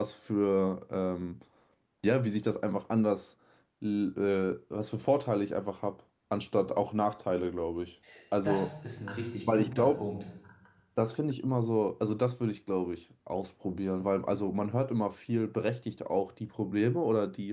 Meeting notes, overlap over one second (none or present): none